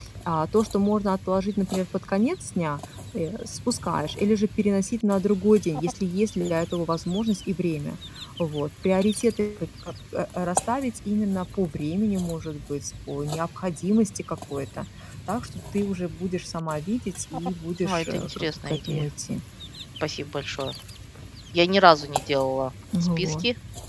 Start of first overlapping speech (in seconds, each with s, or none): 17.8 s